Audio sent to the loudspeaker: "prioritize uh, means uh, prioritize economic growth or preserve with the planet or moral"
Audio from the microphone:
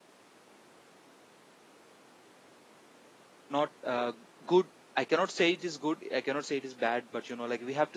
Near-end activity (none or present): present